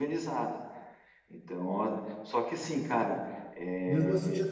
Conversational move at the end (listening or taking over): taking over